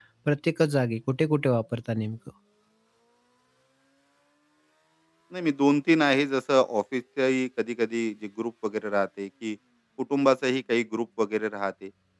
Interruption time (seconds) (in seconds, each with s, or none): none